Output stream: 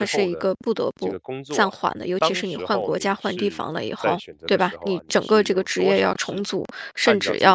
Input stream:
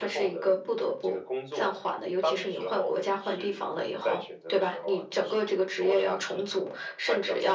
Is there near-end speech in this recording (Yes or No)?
No